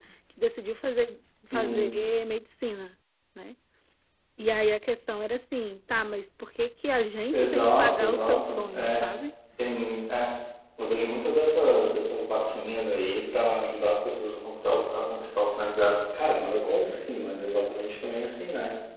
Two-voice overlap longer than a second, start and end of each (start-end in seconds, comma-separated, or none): 7.3-9.1